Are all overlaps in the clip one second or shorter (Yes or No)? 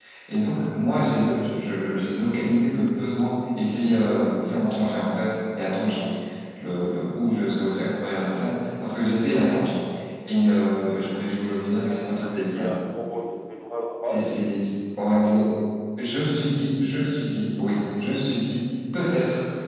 No